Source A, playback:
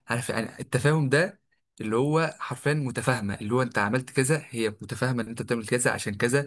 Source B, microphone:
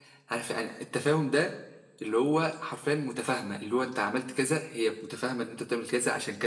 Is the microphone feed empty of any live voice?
Yes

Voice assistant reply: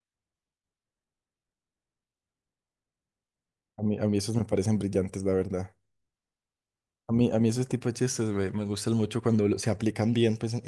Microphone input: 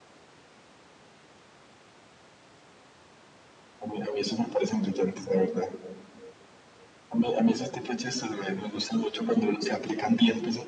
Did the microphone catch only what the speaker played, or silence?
Yes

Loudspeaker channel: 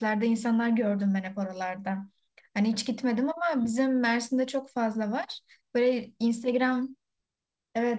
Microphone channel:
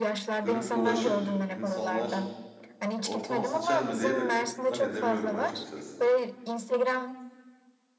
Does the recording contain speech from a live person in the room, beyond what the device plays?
Yes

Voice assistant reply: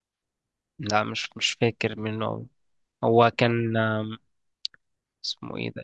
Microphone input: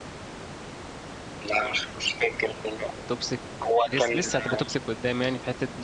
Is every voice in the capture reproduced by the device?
No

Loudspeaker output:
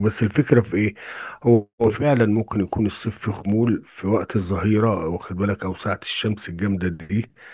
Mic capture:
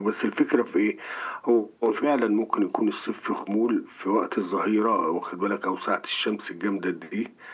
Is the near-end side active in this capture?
No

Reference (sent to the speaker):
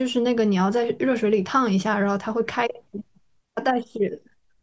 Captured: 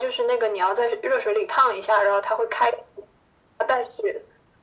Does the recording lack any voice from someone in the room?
Yes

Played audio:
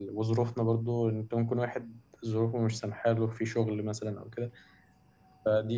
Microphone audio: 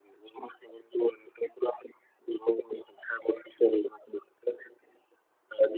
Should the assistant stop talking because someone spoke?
No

